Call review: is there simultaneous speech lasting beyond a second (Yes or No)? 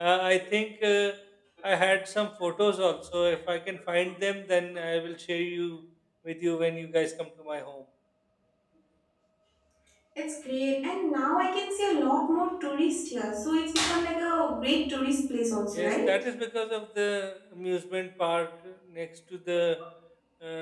No